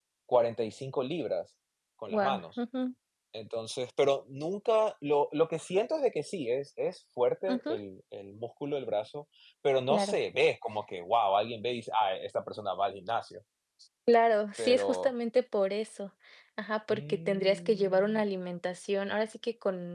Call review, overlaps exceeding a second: present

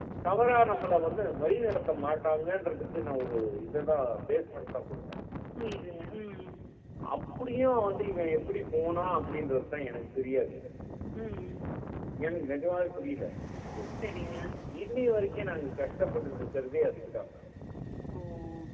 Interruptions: none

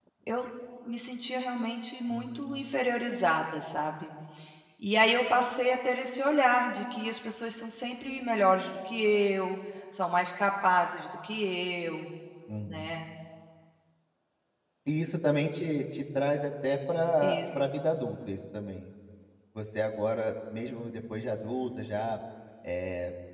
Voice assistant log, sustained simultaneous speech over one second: none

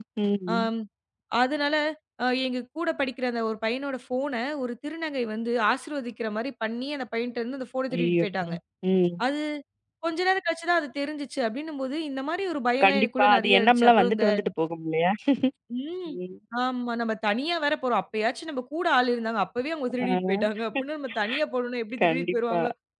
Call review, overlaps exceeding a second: present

